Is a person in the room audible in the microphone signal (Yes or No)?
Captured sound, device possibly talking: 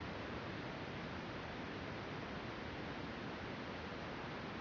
No